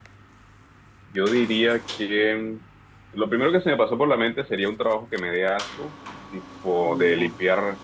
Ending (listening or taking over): listening